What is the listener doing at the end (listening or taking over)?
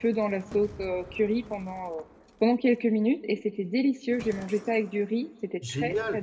taking over